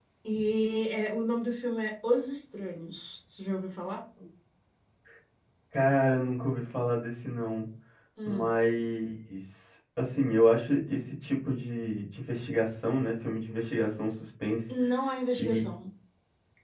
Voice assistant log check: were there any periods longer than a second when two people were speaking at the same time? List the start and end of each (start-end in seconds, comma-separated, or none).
none